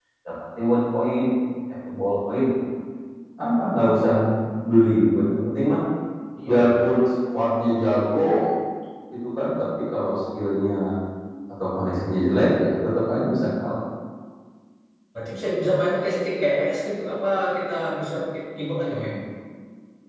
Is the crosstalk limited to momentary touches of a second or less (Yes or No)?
Yes